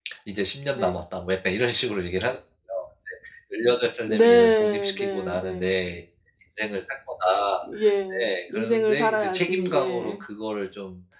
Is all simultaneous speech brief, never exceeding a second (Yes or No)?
No